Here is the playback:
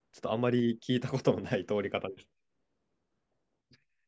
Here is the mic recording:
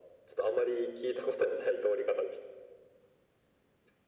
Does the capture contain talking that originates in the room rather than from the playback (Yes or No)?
No